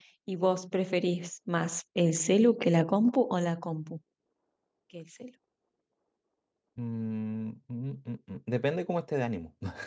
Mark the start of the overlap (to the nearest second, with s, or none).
none